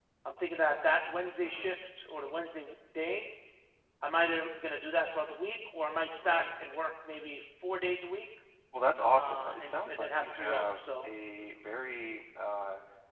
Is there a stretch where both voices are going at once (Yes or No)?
Yes